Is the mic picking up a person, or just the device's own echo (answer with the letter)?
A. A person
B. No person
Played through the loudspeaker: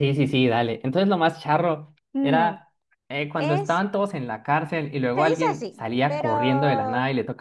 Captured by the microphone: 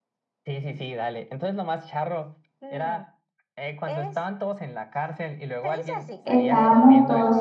A